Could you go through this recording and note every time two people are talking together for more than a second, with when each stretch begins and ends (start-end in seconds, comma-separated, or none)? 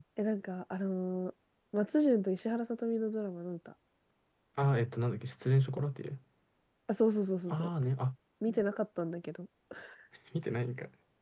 none